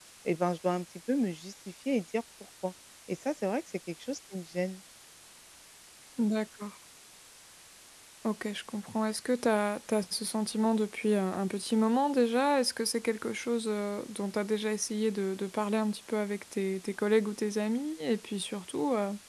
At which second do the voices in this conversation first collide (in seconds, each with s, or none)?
none